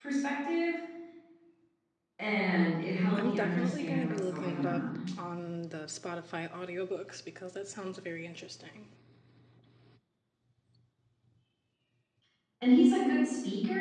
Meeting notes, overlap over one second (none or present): present